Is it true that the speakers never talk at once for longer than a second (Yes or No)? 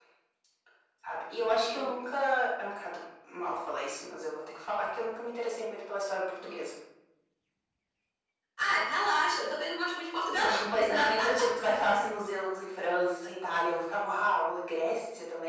Yes